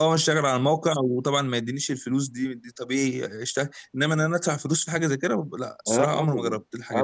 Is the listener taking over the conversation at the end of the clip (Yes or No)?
Yes